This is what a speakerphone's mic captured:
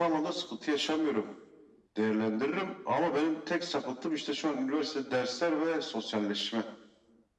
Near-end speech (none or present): none